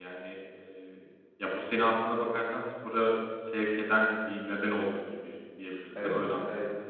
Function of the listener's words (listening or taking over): taking over